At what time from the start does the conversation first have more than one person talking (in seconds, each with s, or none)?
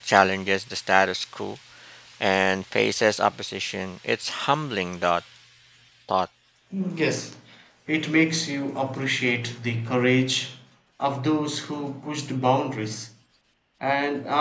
none